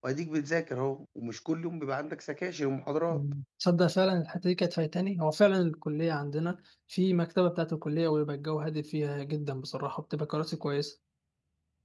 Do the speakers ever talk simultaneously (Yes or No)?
No